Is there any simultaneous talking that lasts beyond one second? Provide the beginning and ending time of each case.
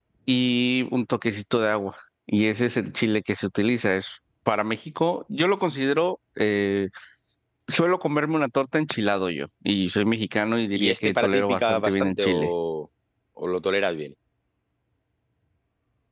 10.8-12.5

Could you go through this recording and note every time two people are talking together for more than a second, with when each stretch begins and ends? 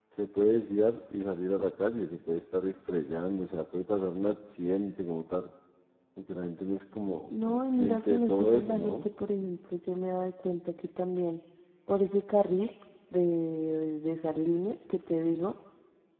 7.3-9.0

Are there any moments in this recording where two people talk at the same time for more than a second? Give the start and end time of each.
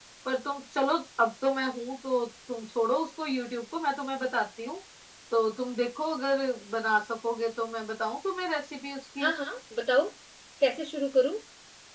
none

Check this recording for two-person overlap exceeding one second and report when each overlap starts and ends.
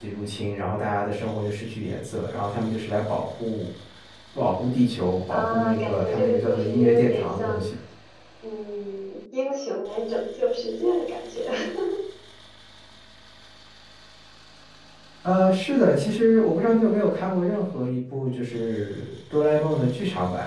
5.3-7.7

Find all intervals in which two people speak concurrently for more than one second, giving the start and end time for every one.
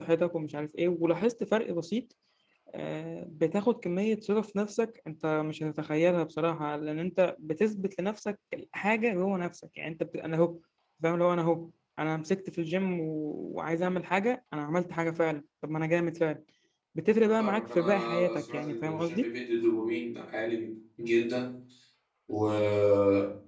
17.2-19.3

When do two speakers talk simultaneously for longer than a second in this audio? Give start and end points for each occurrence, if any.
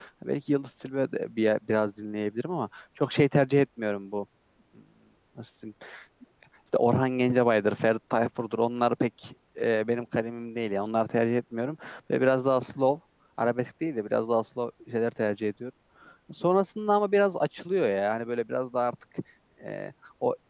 none

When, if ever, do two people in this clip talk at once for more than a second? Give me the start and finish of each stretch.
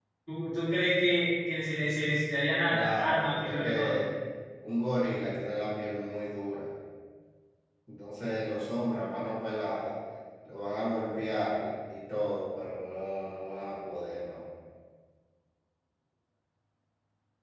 2.7-4.0

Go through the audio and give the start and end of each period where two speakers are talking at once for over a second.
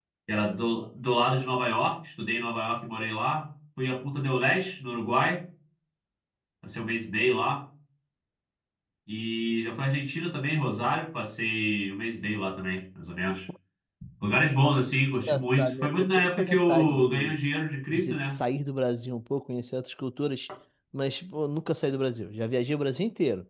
15.2-17.4

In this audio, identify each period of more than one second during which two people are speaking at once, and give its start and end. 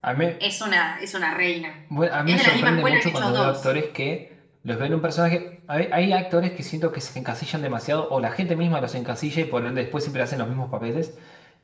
2.3-3.7

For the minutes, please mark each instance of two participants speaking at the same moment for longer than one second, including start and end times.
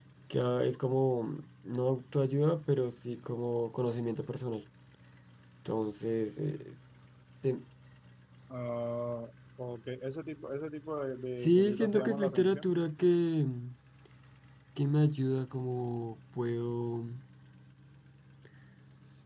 11.3-12.6

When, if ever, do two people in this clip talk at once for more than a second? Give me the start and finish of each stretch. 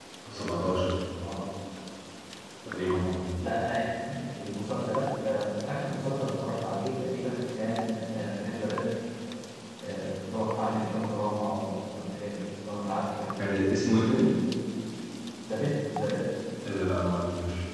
none

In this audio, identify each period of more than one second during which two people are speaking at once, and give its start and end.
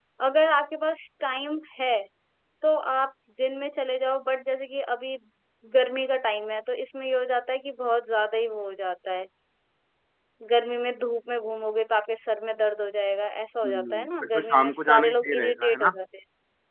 13.6-16.0

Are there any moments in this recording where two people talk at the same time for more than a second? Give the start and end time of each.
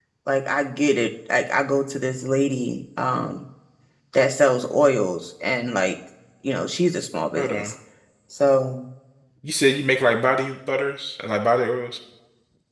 none

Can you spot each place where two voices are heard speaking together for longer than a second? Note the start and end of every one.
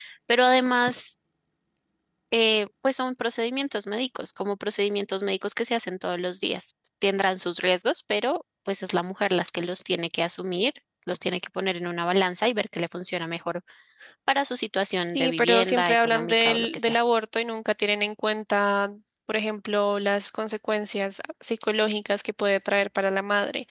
15.2-17.0

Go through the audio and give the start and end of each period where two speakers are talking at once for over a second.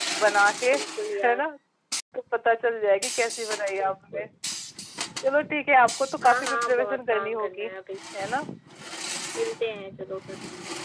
6.2-7.7

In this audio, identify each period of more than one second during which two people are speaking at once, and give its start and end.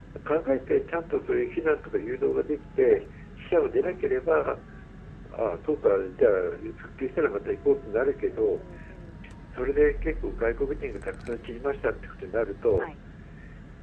none

